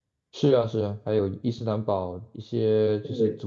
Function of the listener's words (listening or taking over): listening